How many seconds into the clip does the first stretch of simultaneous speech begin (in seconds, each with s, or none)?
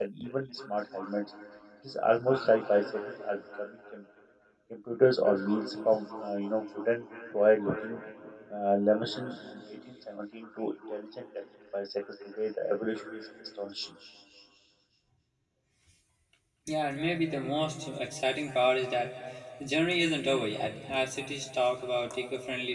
none